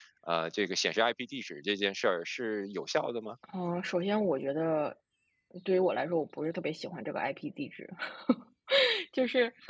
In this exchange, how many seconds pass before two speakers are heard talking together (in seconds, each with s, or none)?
none